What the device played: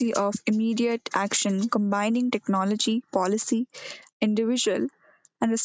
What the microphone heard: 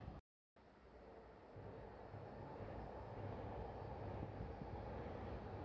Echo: none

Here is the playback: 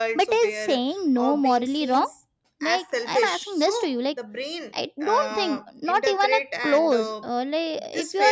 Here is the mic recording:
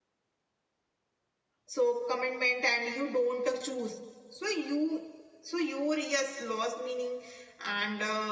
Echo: none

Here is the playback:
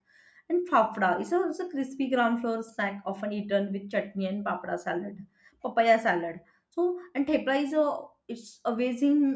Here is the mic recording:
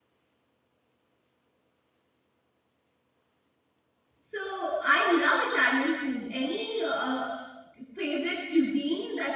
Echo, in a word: none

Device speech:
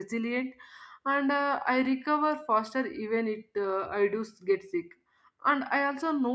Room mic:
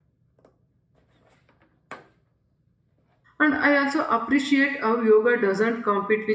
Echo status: none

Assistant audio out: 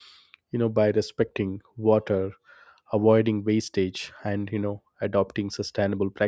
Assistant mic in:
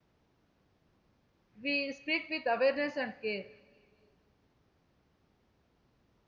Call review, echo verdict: none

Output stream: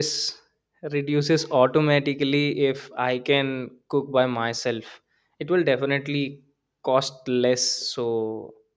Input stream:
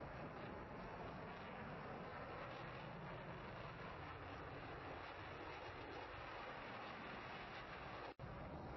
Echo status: none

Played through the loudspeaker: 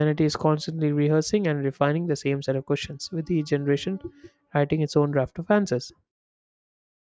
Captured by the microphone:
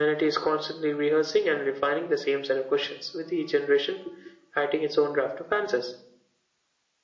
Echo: present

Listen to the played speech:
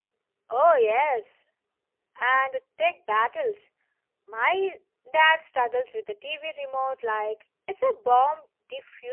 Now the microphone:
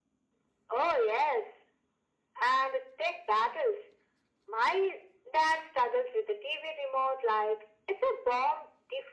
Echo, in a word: present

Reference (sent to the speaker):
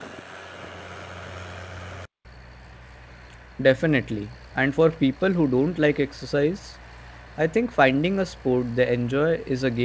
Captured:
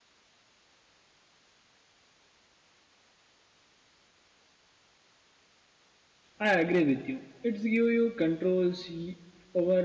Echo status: none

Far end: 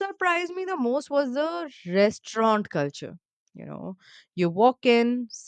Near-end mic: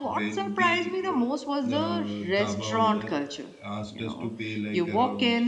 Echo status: present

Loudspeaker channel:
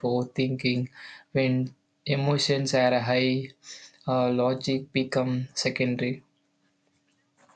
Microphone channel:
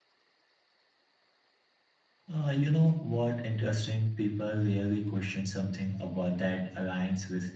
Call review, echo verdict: none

